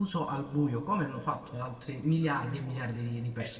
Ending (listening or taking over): taking over